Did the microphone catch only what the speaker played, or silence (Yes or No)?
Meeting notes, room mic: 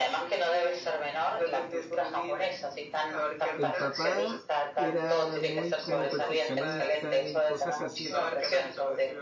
No